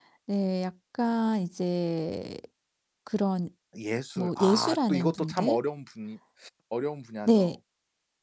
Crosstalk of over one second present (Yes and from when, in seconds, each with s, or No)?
Yes, from 4.2 s